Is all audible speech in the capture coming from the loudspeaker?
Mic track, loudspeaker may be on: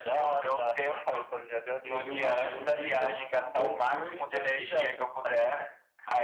No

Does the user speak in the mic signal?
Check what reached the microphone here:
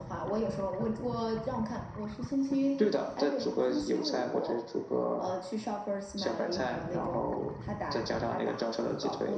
No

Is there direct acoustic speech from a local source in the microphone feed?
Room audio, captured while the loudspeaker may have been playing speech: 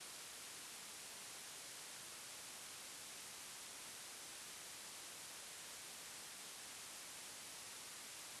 No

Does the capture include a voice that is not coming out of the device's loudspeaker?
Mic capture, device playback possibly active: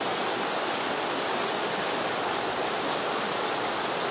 No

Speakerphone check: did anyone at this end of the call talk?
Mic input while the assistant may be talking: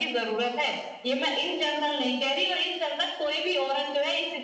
No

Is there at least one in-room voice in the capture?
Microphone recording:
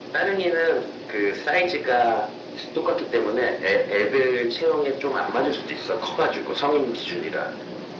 No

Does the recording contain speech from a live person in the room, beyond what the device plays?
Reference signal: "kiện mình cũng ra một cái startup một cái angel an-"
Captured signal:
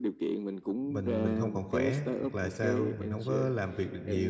Yes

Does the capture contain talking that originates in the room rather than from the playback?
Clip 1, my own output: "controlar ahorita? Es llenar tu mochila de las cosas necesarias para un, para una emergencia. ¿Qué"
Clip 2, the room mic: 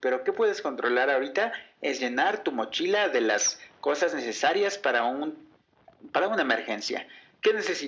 No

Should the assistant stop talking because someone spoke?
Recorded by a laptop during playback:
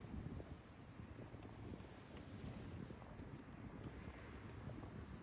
No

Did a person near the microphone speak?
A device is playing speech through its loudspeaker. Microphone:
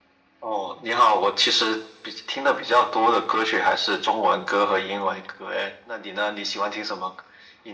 No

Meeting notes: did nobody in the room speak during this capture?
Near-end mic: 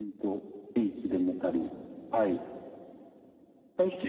Yes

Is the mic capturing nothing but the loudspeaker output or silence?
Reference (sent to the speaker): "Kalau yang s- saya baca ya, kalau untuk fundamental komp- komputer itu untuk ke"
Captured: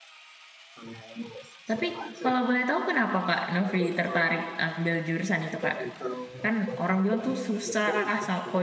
No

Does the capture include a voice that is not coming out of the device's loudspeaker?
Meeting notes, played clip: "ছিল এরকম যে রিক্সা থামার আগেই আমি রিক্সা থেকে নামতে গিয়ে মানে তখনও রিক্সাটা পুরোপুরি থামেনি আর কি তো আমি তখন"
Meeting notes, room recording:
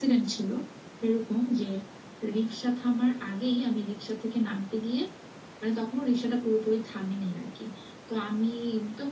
No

